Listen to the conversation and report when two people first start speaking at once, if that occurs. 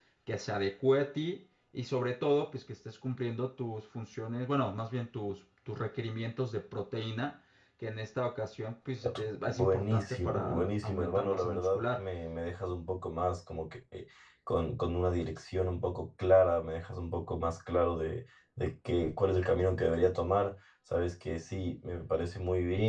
9.0 s

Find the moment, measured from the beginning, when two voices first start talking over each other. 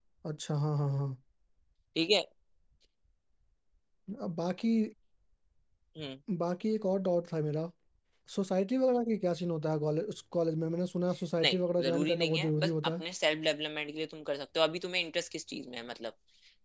11.4 s

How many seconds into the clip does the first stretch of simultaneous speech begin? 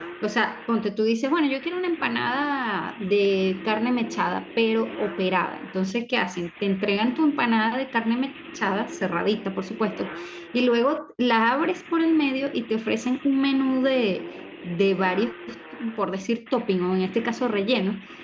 none

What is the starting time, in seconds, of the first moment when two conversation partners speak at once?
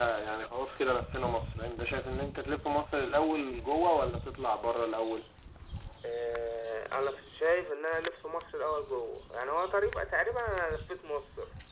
none

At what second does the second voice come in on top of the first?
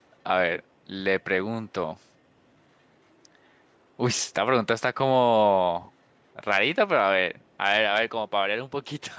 none

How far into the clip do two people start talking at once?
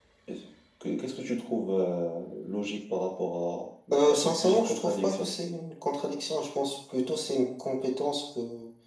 3.9 s

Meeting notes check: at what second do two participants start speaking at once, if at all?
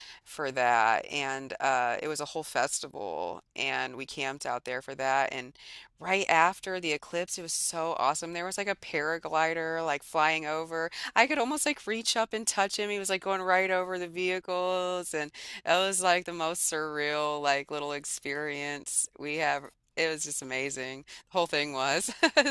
none

